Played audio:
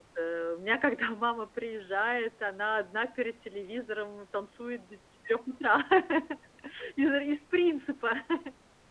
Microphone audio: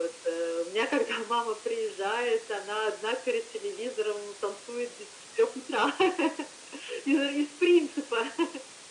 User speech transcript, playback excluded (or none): none